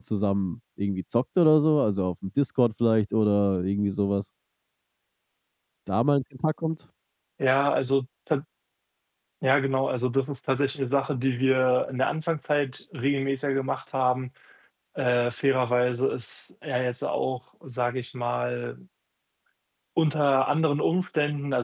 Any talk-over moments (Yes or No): No